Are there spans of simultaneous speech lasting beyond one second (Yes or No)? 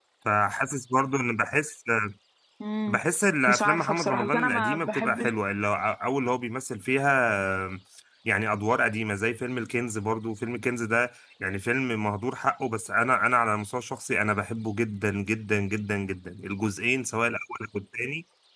Yes